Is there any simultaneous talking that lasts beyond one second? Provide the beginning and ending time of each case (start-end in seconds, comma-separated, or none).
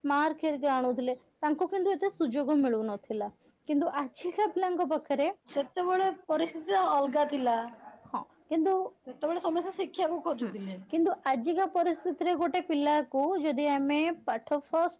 none